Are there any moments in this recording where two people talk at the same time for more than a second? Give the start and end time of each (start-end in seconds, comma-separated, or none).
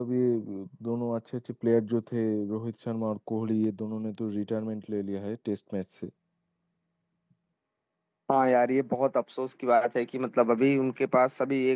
none